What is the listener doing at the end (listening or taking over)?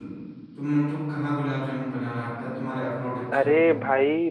taking over